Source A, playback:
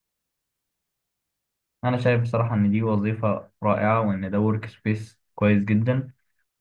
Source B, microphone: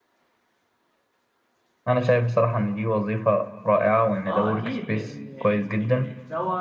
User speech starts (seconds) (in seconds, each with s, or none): 4.3 s